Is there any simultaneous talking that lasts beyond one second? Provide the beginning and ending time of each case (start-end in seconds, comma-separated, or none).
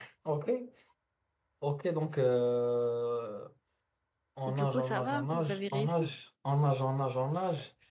4.5-6.1